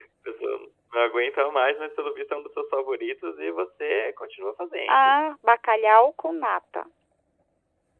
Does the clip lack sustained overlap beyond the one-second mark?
Yes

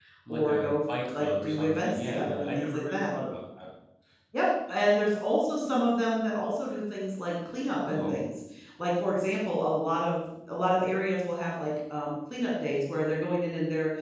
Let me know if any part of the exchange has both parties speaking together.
Yes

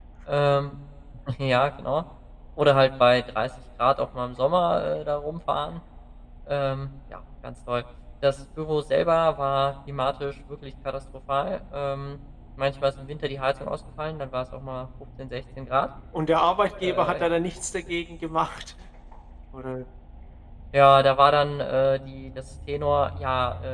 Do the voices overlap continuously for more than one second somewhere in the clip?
No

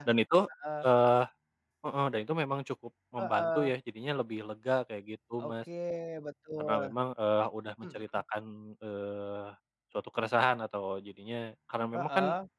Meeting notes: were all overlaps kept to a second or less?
Yes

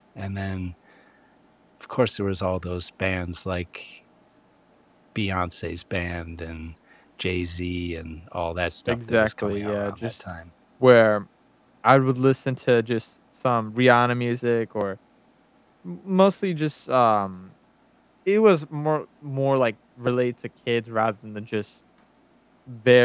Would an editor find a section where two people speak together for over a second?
Yes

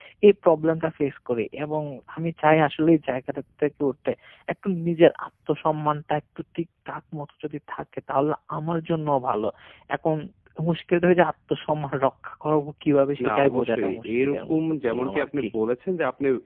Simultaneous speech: Yes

